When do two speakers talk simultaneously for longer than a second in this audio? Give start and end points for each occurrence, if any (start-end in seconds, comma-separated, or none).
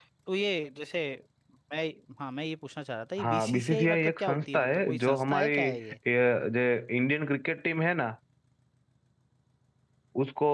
3.2-5.8